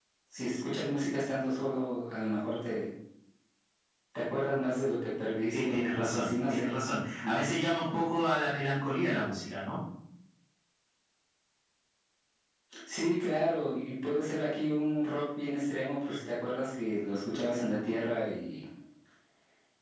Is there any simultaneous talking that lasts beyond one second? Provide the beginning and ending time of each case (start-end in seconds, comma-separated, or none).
5.5-6.8